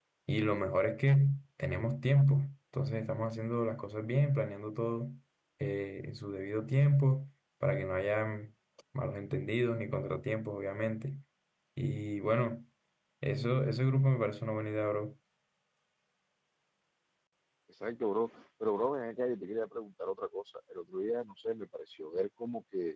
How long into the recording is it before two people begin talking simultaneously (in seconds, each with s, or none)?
none